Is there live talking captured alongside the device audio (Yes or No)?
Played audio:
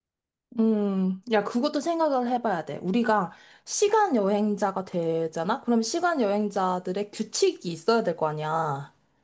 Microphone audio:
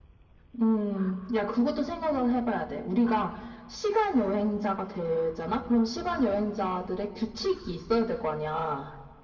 No